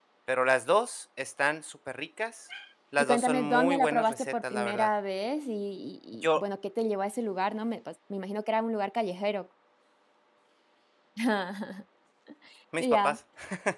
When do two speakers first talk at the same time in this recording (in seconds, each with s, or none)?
3.0 s